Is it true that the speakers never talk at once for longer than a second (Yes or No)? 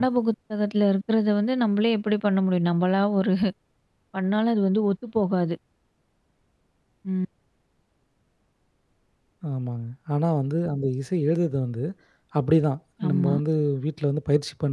Yes